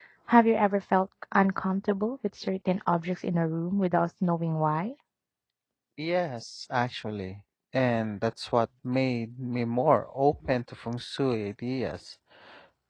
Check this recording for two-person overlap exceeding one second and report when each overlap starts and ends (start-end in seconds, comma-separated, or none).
none